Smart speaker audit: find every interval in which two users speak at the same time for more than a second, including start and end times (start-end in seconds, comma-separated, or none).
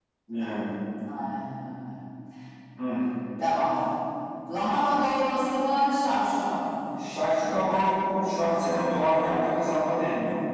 none